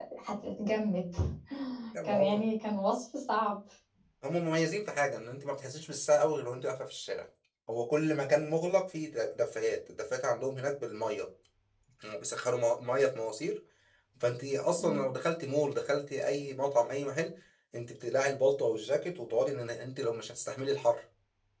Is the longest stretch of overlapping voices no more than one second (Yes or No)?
Yes